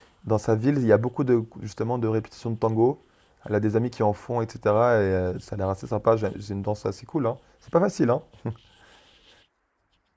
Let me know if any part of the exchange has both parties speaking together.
No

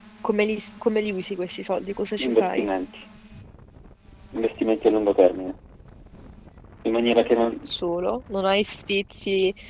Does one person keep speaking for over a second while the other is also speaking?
No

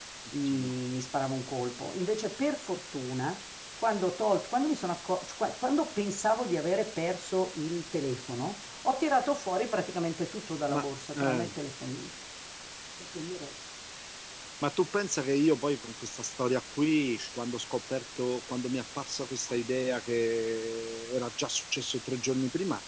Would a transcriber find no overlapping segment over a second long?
Yes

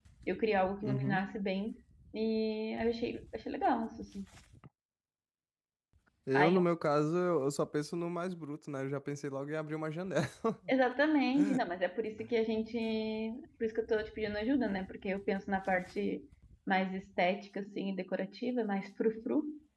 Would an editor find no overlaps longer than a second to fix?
Yes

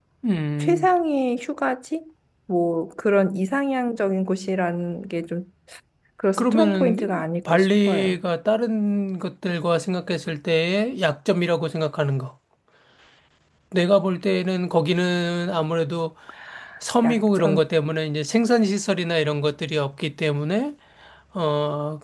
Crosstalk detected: Yes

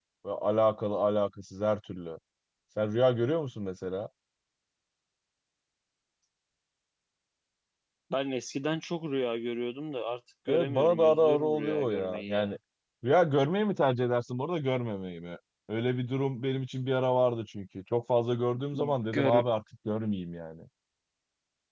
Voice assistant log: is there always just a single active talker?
No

